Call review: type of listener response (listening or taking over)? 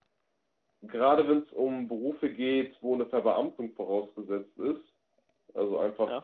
listening